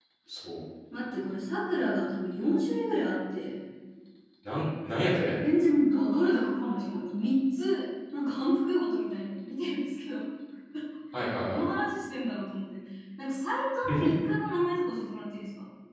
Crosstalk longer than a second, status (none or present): none